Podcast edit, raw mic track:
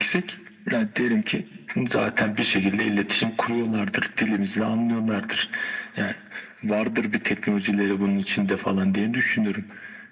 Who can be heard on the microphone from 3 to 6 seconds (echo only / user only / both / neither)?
echo only